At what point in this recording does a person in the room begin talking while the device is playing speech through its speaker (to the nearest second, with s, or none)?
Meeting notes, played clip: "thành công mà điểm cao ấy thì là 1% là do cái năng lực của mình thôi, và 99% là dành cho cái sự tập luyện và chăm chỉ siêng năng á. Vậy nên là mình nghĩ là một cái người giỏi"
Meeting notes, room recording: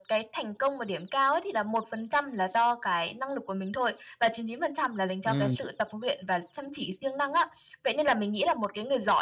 5 s